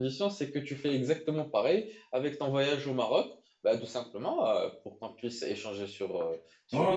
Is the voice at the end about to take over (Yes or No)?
Yes